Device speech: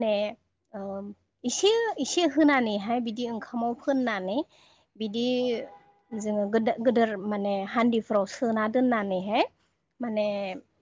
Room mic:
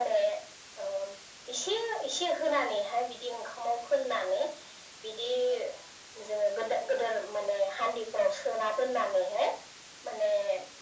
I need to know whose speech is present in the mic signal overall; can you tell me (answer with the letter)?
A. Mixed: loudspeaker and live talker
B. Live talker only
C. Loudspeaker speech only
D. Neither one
C